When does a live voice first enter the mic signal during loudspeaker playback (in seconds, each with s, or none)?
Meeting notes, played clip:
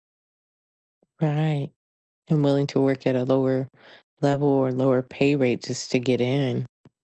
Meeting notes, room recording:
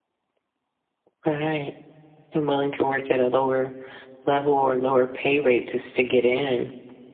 none